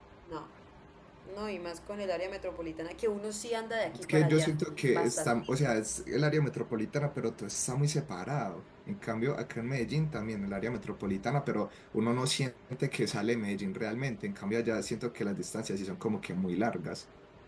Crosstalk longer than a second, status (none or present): present